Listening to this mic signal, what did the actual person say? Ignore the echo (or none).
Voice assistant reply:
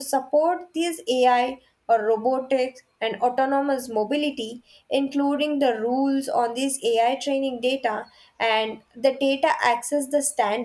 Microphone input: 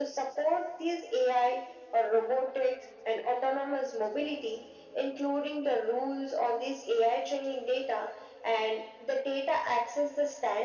none